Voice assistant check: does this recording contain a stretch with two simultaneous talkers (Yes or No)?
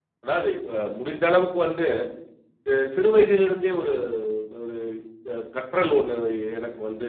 No